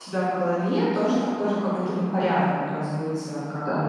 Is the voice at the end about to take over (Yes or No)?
No